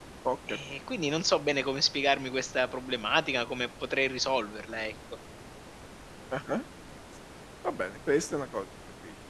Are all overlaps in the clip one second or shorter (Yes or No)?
Yes